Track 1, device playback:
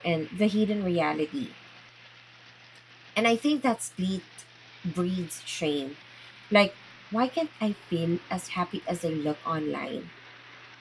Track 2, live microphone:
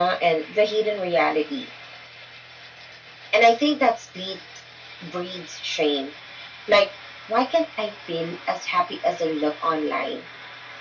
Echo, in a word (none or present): present